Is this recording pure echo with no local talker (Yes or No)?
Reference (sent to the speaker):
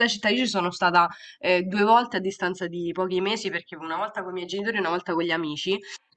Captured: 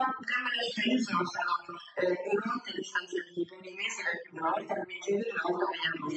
Yes